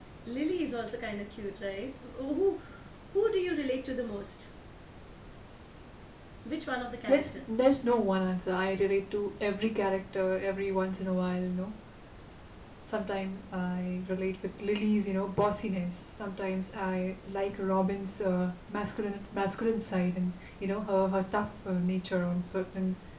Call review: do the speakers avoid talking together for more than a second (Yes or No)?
Yes